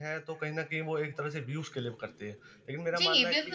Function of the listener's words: taking over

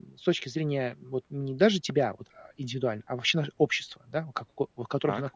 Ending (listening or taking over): listening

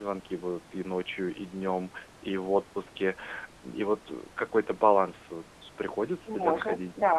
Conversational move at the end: taking over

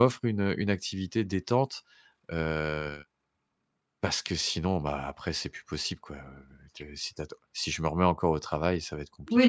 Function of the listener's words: taking over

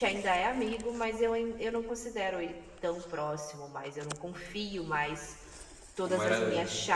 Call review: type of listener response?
listening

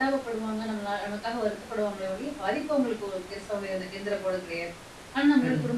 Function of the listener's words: listening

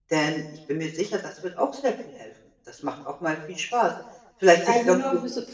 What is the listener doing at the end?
taking over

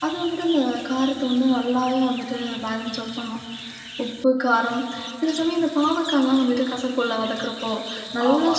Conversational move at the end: listening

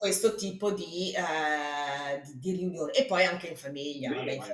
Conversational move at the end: taking over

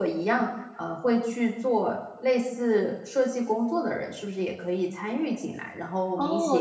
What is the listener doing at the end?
taking over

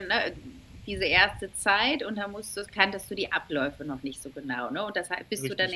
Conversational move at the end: listening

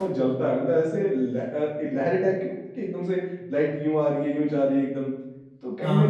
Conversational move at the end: listening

